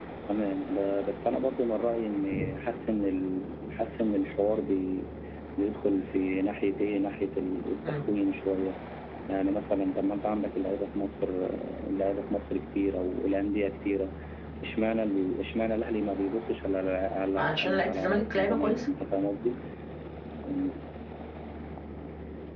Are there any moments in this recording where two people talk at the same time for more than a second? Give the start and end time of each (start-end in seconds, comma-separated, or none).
17.4-18.8